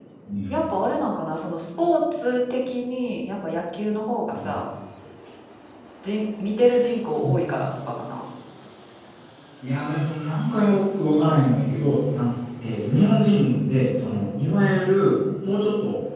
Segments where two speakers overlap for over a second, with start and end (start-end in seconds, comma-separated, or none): none